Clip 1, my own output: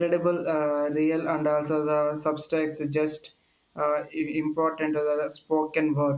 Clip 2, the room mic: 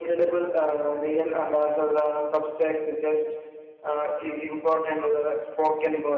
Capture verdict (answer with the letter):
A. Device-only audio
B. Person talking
A